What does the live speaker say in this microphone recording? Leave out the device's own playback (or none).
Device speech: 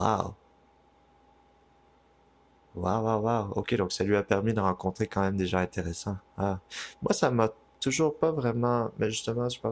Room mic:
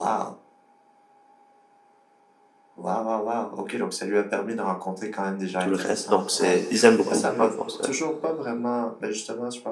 tout le reste. Donc c'est, ils aiment beaucoup dans le fond. Ça,